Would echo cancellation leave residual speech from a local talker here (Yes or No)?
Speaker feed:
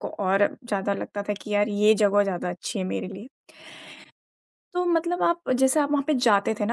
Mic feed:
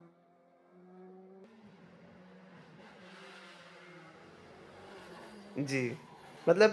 Yes